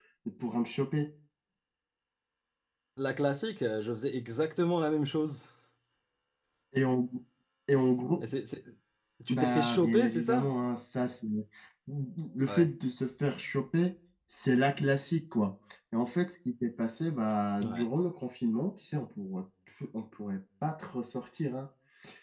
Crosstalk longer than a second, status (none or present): present